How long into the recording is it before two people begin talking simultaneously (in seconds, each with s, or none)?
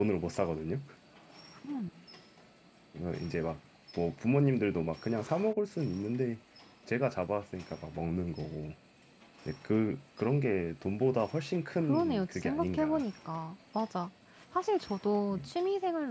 11.8 s